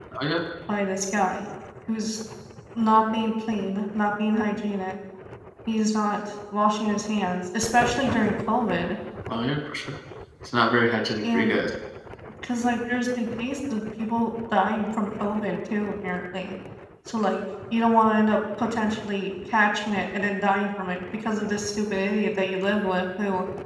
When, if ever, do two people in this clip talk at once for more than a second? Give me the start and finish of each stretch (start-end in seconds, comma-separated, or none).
none